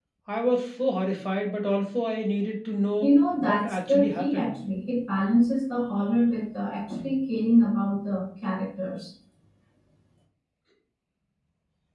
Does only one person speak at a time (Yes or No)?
No